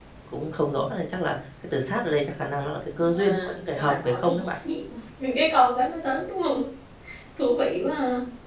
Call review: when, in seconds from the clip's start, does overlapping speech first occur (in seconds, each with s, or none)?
3.0 s